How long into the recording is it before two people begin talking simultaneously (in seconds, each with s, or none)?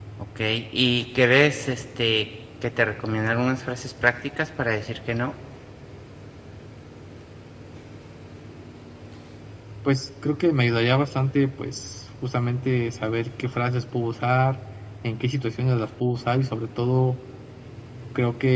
none